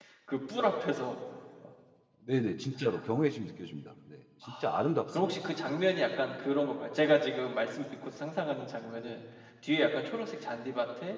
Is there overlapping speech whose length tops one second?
No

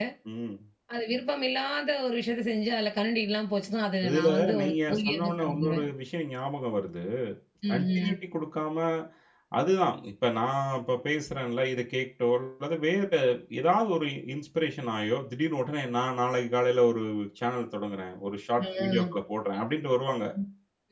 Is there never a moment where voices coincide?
No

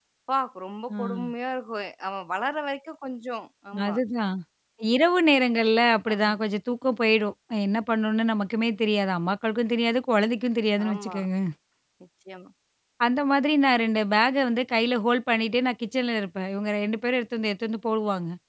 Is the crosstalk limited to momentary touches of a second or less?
Yes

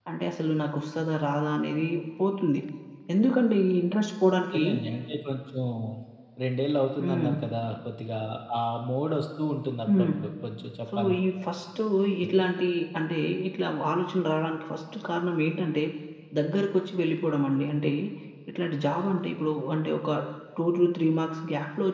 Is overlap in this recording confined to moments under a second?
Yes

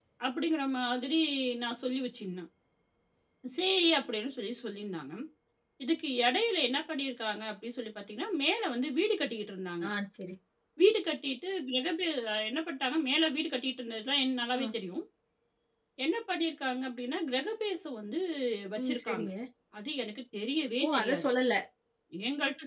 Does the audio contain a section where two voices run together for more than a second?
No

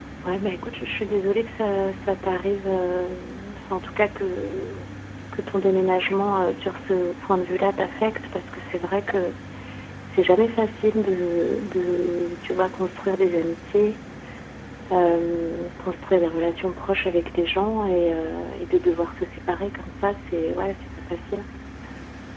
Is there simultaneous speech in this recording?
No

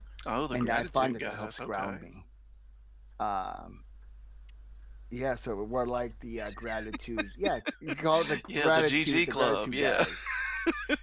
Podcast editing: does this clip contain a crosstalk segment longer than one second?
Yes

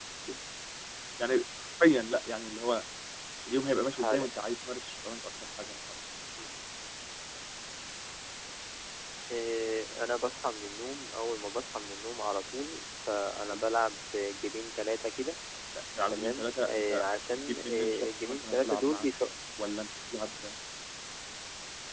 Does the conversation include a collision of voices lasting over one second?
Yes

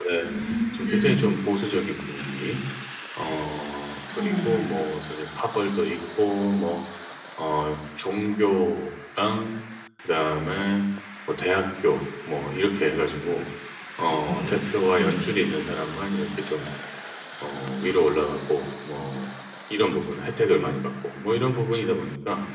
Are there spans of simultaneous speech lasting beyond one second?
No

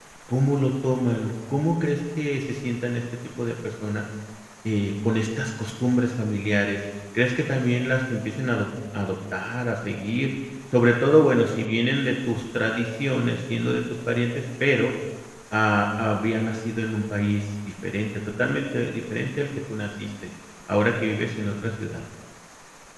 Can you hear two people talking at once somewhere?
No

